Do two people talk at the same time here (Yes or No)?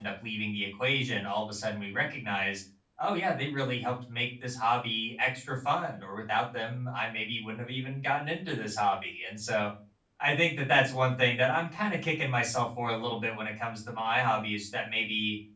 No